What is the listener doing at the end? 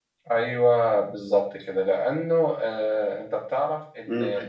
listening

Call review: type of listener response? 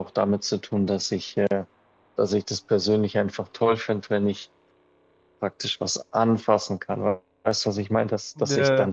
listening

